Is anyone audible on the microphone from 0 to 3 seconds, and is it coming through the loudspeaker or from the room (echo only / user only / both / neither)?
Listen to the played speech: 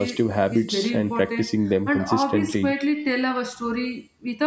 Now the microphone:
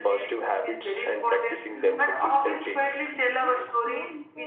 both